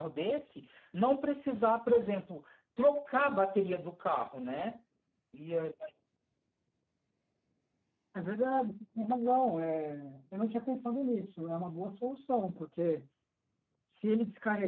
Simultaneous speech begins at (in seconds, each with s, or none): none